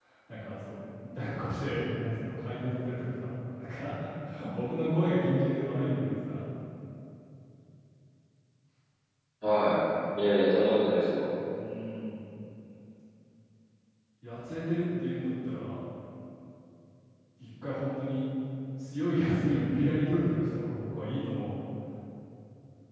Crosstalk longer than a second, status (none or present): none